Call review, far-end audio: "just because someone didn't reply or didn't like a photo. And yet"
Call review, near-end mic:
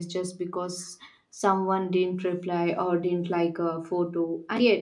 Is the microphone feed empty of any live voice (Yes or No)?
Yes